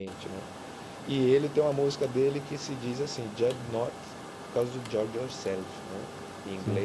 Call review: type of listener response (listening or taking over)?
listening